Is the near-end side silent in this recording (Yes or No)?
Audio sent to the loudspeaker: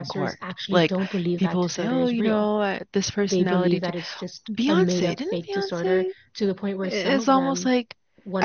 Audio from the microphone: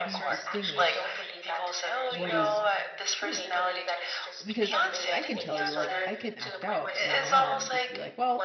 No